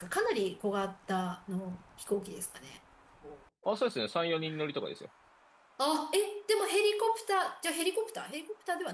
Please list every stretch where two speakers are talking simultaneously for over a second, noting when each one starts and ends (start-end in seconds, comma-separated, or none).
none